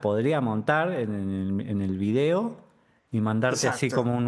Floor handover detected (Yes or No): No